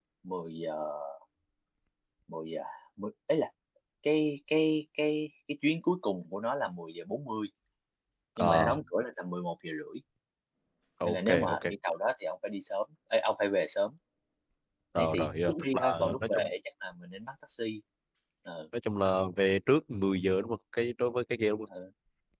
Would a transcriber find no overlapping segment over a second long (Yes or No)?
No